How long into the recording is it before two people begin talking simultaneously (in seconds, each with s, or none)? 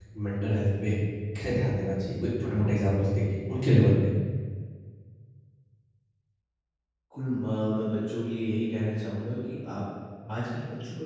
none